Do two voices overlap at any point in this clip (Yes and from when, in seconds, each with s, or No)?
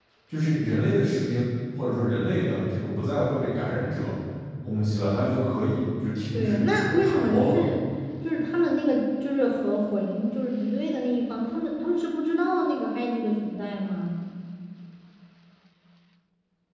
Yes, from 6.3 s